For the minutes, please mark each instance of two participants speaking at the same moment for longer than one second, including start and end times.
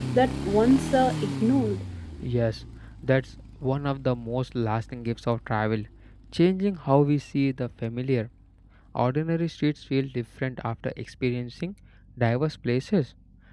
none

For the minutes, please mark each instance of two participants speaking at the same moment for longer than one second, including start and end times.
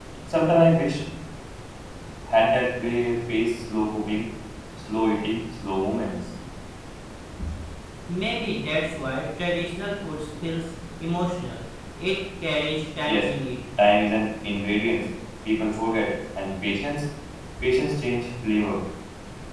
none

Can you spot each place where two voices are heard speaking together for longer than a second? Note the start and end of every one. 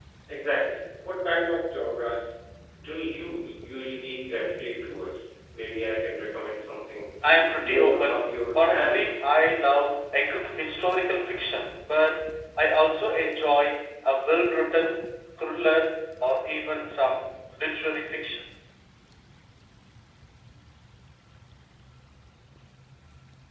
7.5-9.0

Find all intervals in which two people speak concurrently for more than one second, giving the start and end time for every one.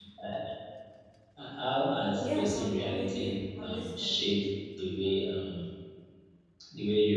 2.2-4.1

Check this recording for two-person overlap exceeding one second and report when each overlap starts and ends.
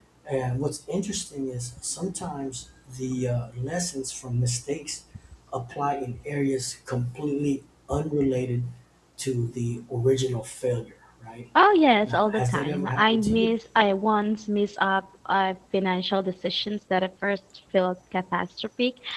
12.0-13.6

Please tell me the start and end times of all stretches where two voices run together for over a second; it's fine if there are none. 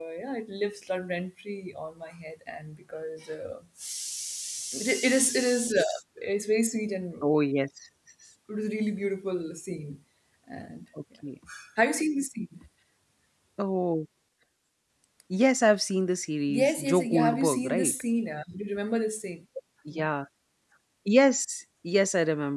16.5-17.9

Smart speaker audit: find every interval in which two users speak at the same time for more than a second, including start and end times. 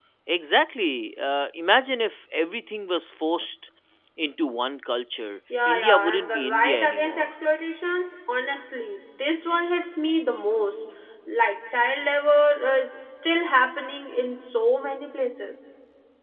5.7-7.3

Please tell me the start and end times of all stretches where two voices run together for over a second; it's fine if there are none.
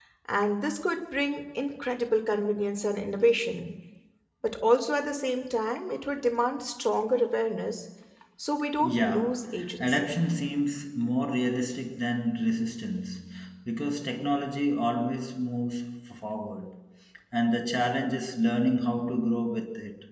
8.8-10.1

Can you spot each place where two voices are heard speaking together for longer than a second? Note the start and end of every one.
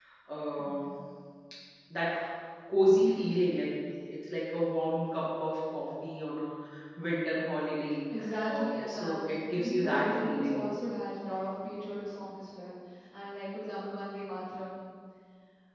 8.5-10.7

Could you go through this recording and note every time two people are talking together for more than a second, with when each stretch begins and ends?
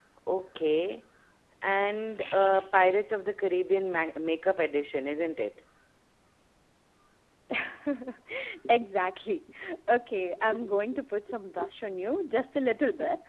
none

